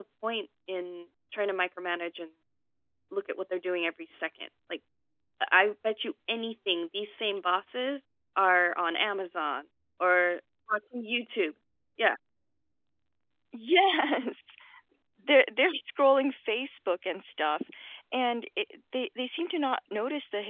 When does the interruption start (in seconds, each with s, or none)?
none